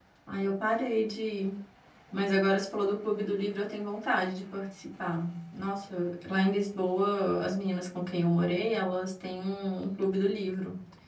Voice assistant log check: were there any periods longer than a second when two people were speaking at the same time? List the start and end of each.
none

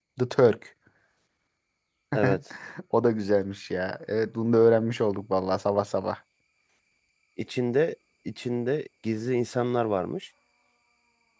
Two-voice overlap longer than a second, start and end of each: none

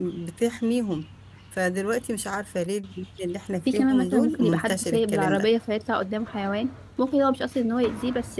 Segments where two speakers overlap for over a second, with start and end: 3.7-5.5

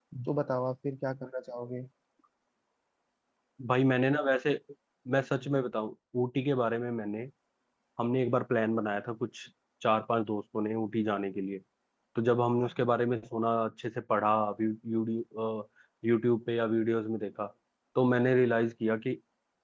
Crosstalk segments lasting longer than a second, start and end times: none

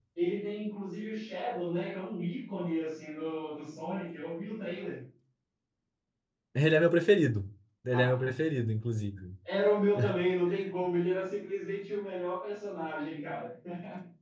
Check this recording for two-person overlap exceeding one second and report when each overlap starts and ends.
none

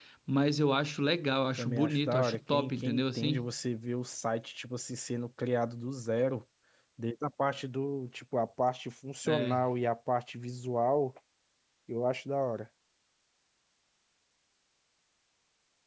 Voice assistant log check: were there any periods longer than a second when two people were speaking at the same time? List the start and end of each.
1.6-3.5

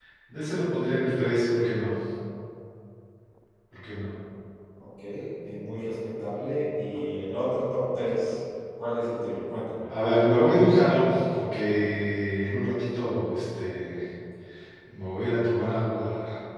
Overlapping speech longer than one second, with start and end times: none

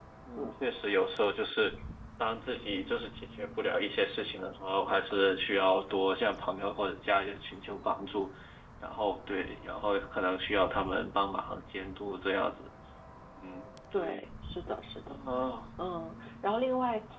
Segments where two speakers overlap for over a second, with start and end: none

